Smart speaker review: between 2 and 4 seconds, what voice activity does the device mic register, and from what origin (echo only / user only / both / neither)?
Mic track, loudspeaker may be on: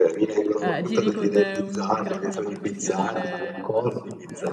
both